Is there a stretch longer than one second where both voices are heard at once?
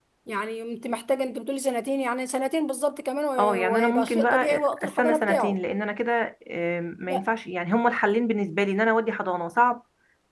Yes, from 3.4 s

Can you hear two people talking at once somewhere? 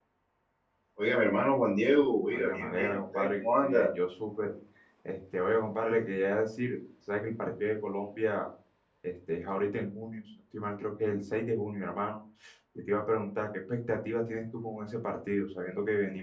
Yes, from 2.3 s

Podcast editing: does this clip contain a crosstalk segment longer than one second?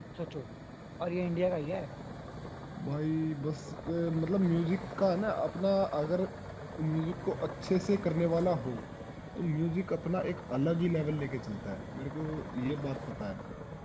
No

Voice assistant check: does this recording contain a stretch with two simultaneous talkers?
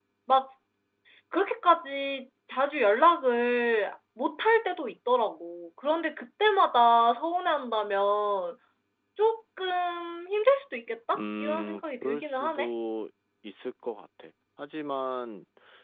Yes, from 11.1 s

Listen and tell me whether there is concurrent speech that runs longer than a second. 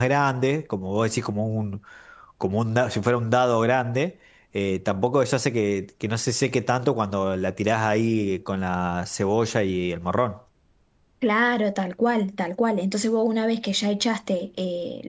No

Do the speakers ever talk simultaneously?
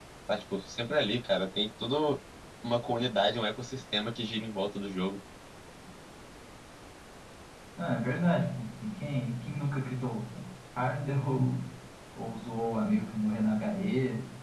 No

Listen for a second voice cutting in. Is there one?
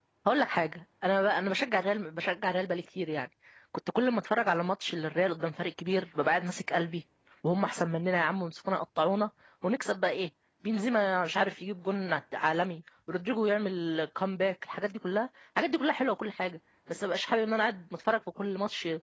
No

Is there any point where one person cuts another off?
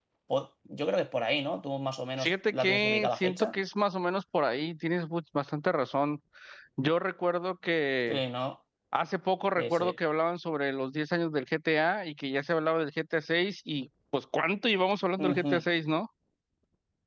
Yes, from 2.2 s

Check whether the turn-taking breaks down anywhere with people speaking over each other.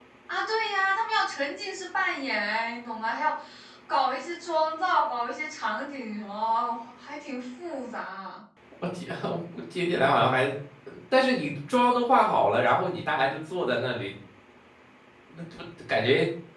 No

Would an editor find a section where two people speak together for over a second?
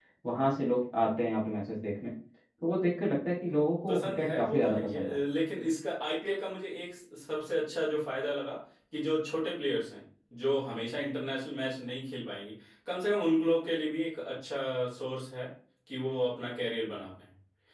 Yes, from 3.9 s

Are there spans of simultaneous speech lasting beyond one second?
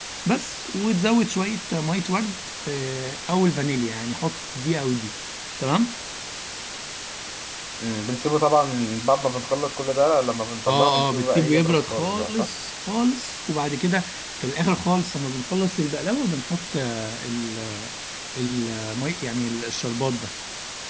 Yes, from 10.7 s

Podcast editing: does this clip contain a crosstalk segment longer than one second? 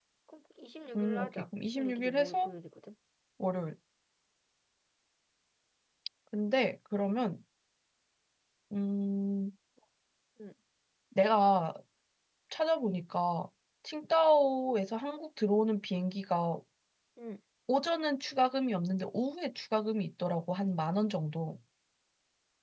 Yes, from 1.0 s

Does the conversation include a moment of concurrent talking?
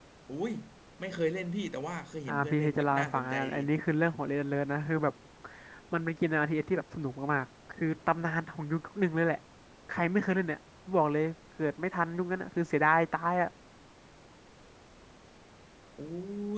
Yes, from 2.3 s

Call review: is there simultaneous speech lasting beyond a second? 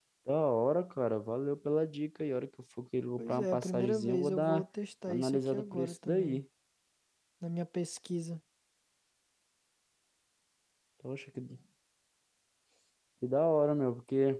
Yes, from 3.2 s

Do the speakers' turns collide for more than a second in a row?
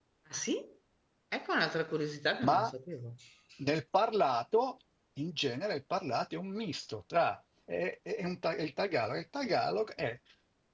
No

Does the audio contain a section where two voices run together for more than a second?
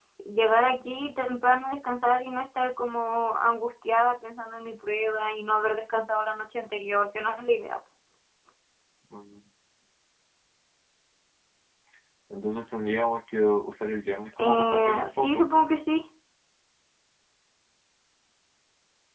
Yes, from 14.3 s

